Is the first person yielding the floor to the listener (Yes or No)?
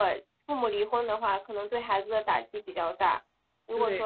No